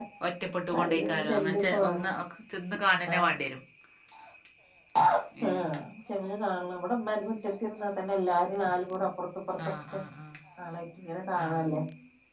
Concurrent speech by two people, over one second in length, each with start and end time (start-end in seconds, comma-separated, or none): 0.8-2.1